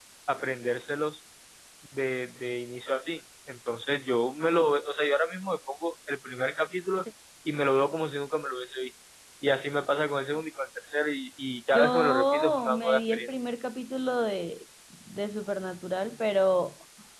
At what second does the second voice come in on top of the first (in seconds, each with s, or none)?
11.7 s